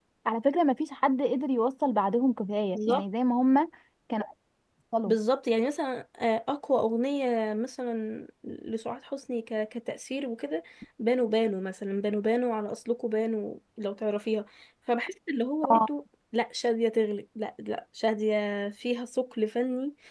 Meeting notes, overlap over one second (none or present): none